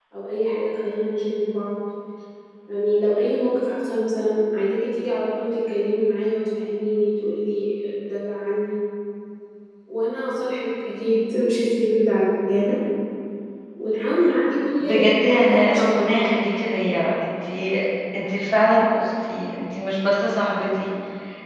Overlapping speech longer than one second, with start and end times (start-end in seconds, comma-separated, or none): 14.8-16.3